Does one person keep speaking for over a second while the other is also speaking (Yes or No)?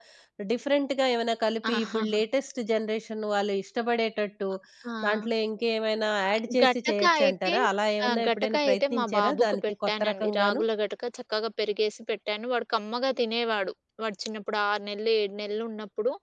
Yes